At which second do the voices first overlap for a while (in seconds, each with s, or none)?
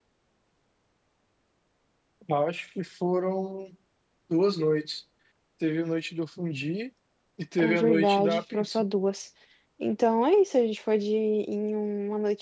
7.6 s